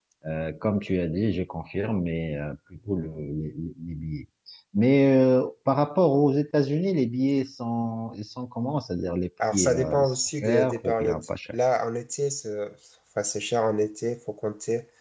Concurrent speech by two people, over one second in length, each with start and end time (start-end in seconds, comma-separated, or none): 9.5-11.3